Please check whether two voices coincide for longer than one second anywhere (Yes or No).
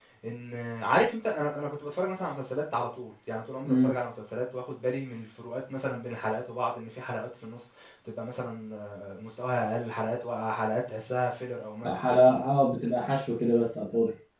No